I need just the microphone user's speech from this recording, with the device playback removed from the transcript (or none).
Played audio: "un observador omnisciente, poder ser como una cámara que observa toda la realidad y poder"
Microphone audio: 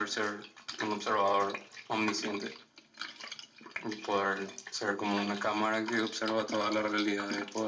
none